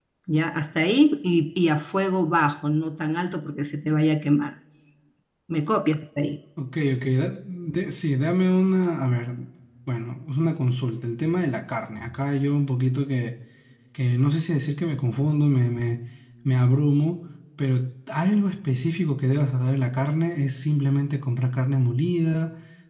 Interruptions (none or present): none